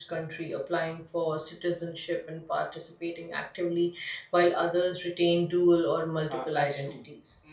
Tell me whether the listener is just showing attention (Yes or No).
No